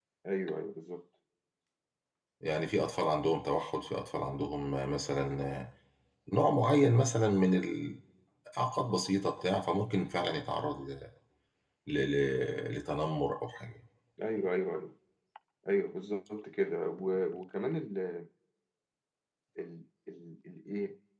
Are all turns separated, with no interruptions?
Yes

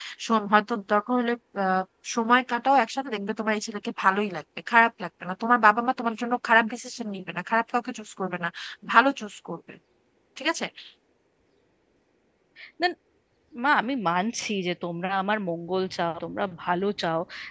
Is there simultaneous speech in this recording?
No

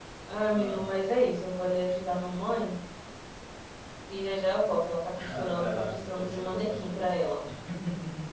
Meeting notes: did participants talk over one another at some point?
Yes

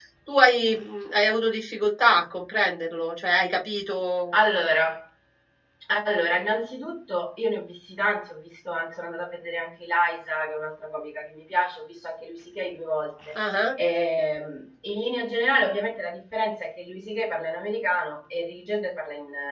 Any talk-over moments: No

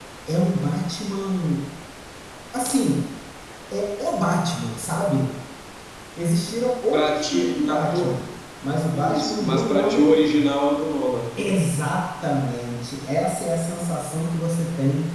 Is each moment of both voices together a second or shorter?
No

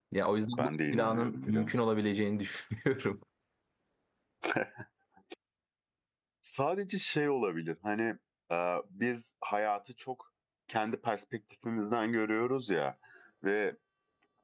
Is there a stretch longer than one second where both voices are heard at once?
Yes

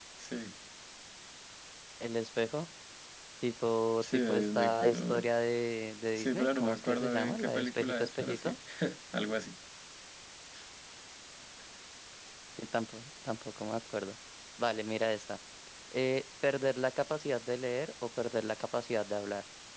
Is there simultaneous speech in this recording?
Yes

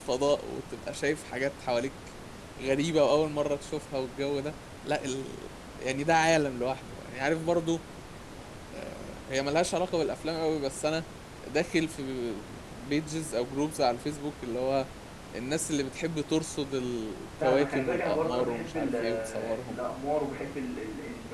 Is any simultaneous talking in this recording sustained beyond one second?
Yes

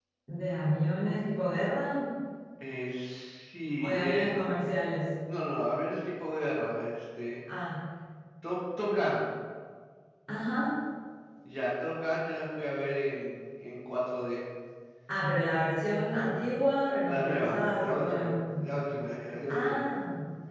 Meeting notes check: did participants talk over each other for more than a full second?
Yes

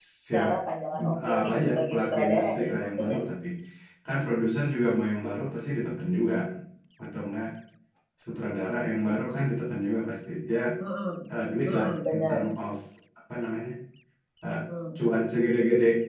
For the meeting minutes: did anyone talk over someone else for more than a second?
Yes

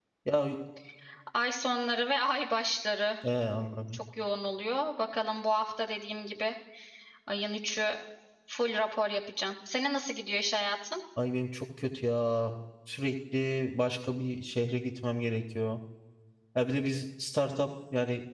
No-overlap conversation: Yes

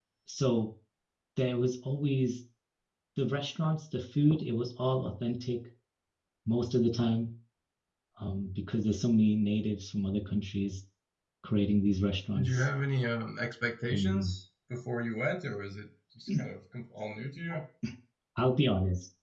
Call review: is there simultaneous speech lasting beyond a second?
No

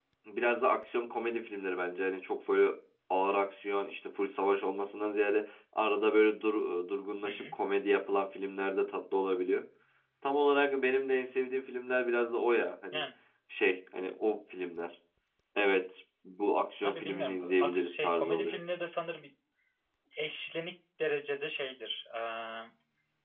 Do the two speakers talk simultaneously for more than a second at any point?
Yes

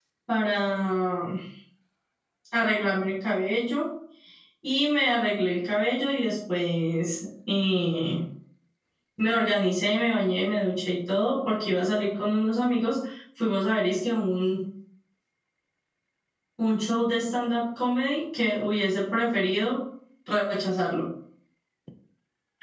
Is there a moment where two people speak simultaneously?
No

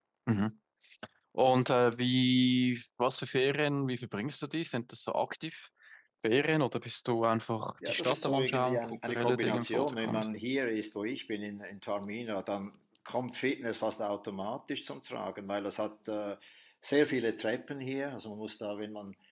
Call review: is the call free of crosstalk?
No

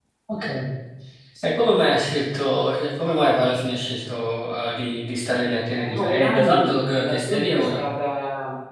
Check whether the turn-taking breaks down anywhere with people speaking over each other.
Yes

